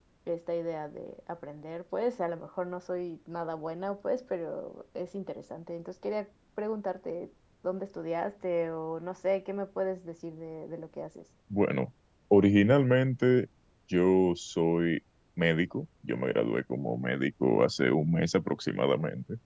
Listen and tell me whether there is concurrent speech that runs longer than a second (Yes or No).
No